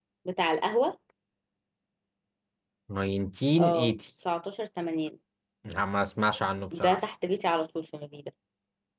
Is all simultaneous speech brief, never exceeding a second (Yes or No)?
Yes